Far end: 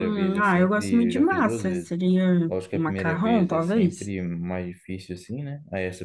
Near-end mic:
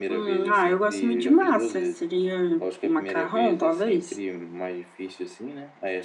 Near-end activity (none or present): none